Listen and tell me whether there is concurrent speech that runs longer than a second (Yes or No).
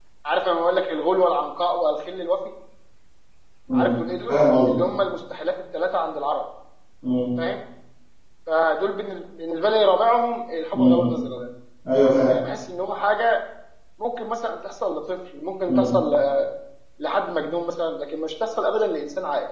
No